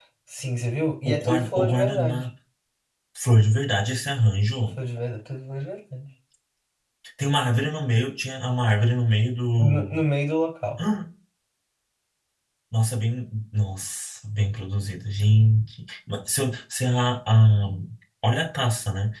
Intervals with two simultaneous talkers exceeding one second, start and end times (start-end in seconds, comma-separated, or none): 1.1-2.2